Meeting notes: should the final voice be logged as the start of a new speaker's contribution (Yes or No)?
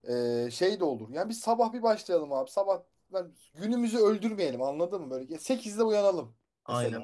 Yes